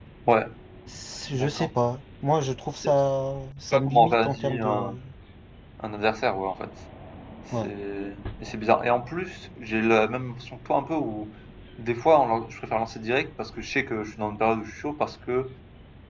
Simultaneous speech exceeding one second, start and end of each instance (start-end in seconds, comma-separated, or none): 3.7-5.0